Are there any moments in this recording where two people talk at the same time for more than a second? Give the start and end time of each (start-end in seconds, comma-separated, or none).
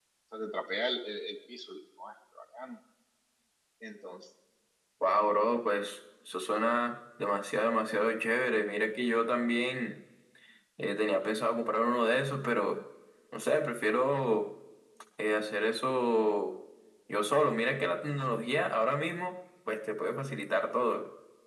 none